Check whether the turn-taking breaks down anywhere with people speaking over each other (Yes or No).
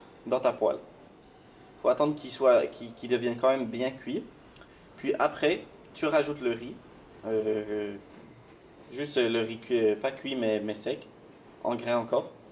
No